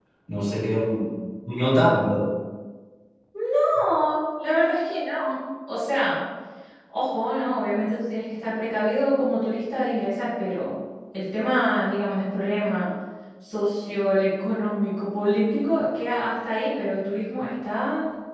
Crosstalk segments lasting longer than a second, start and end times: none

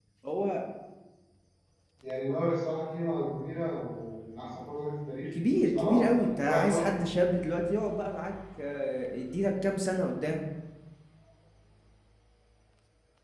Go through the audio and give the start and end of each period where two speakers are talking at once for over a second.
5.5-6.9

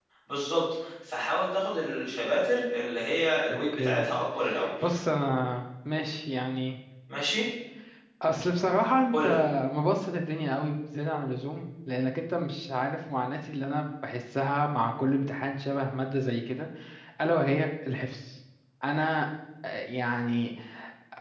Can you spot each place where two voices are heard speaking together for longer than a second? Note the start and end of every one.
none

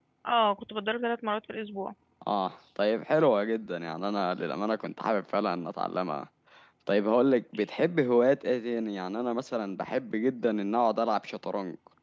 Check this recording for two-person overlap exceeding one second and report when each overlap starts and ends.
none

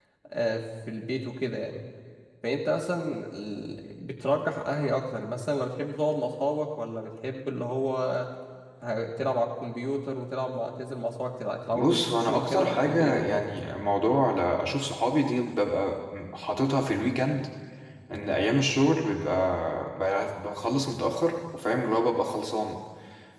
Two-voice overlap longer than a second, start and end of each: 11.7-13.4

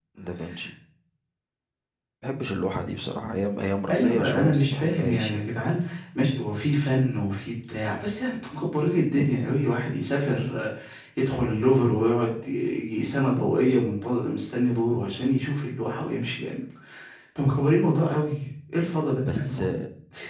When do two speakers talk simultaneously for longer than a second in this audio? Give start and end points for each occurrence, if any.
3.9-5.4

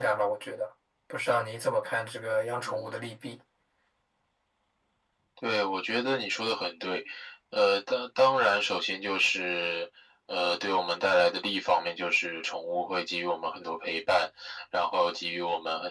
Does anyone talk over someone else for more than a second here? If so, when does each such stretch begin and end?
none

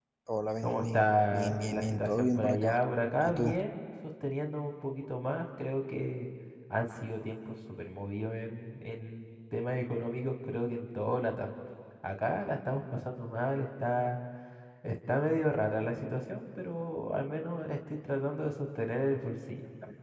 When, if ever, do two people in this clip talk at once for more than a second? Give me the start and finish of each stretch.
0.6-2.8

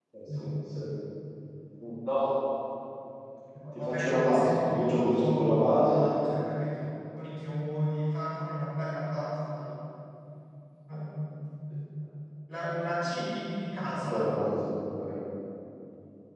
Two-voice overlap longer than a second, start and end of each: 3.7-6.1

